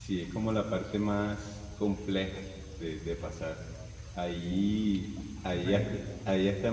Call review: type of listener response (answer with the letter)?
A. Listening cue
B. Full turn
A